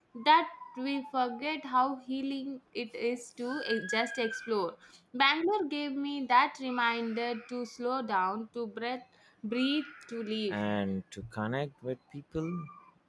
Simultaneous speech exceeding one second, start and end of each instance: none

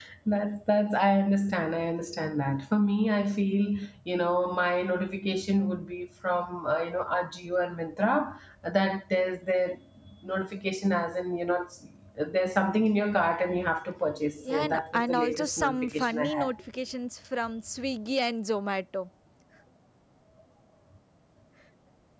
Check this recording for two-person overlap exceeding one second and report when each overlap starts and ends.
14.5-16.5

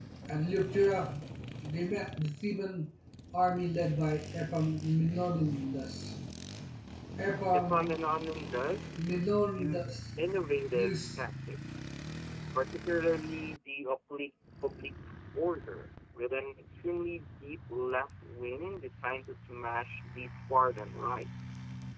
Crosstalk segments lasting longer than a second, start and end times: none

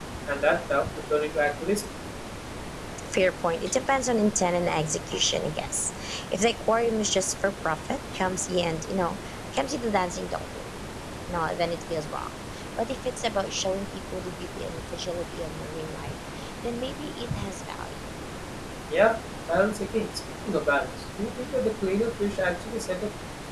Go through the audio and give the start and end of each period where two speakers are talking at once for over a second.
none

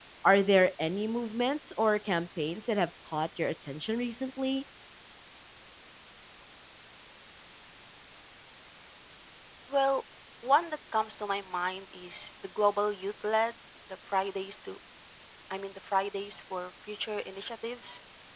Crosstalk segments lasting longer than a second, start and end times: none

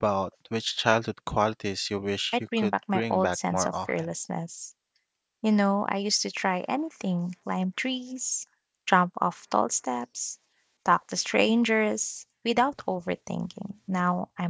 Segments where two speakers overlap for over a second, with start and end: 2.3-4.1

